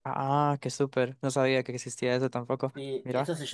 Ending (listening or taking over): taking over